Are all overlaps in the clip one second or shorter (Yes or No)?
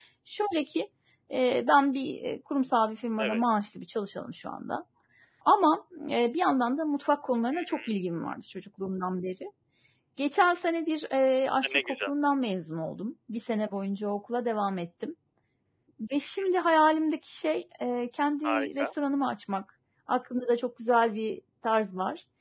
Yes